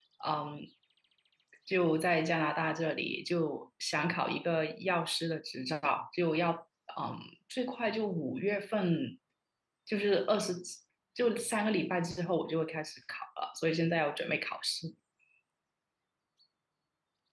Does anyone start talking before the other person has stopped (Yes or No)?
No